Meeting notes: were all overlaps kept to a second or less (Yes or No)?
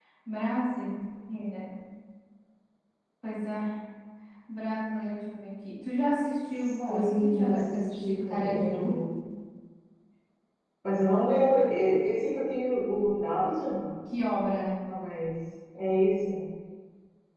No